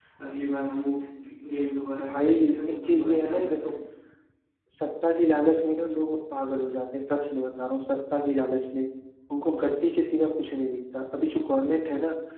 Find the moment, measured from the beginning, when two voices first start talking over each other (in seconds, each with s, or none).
2.0 s